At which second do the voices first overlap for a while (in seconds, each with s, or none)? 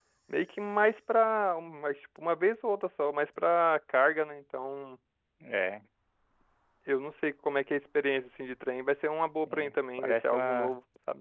9.5 s